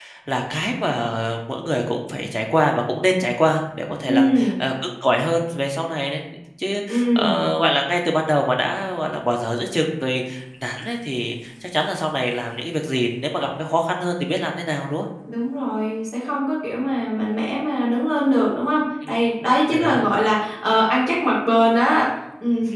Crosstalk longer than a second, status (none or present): none